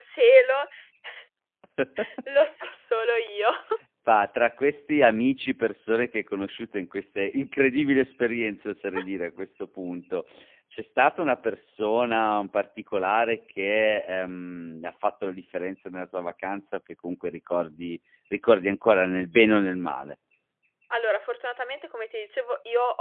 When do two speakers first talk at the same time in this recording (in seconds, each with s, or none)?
none